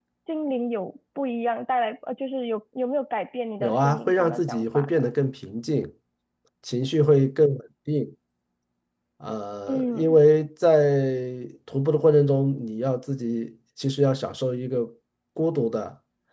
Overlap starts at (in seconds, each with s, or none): 3.6 s